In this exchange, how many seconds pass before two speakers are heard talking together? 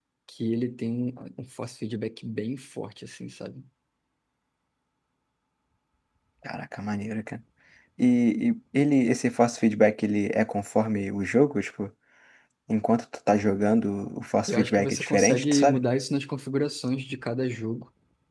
14.5 s

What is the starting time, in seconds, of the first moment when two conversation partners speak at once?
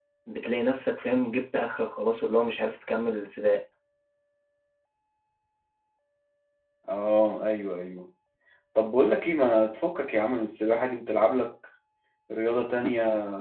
none

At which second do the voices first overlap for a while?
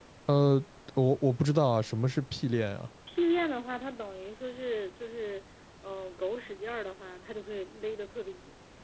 none

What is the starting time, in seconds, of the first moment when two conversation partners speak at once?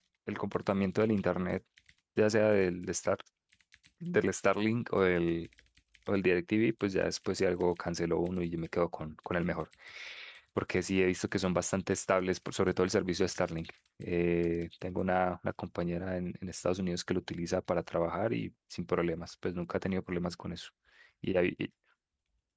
none

